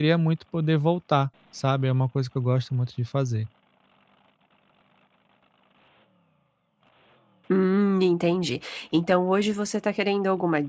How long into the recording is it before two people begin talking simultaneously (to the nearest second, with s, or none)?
none